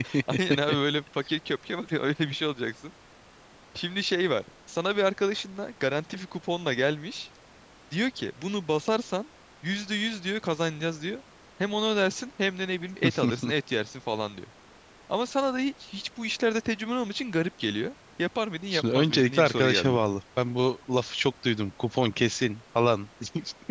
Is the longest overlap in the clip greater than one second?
Yes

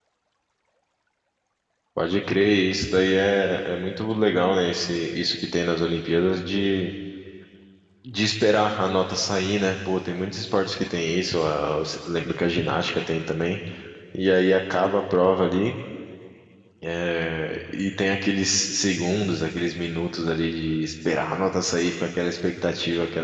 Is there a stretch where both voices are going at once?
No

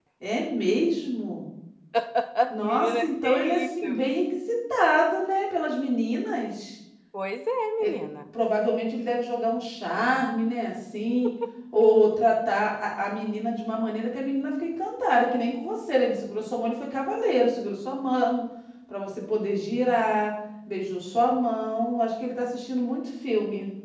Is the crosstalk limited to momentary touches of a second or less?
No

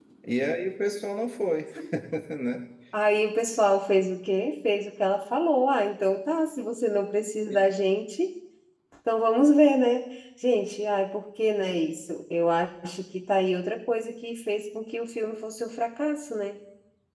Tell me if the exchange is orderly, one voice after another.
Yes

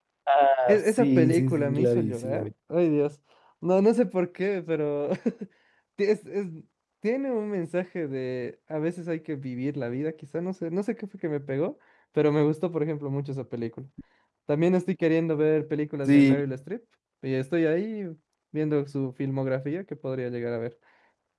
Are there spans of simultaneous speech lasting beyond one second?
Yes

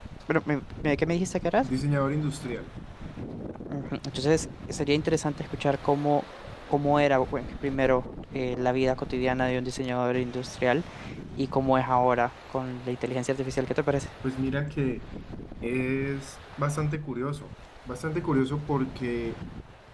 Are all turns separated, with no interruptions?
Yes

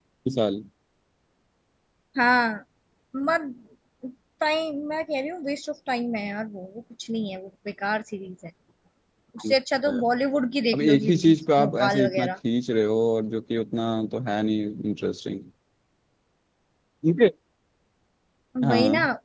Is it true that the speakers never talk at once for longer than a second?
No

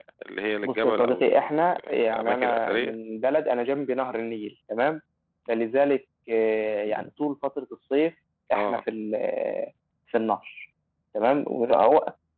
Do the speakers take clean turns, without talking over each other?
No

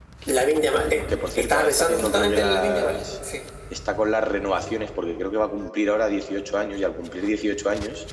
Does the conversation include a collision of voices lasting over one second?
Yes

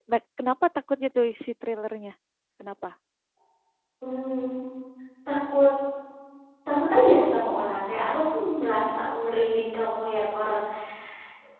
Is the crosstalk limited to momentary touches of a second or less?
Yes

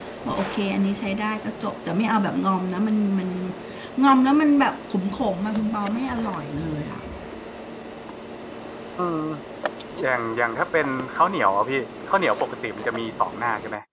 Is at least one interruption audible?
No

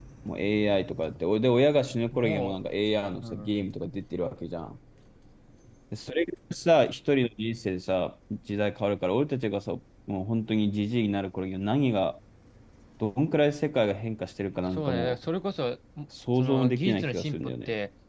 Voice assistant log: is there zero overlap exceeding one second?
No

